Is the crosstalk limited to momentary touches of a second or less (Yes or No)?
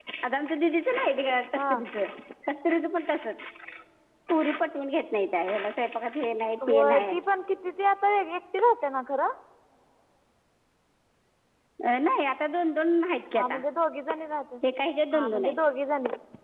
Yes